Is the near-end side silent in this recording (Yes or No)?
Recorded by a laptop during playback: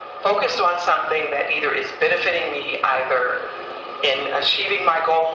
Yes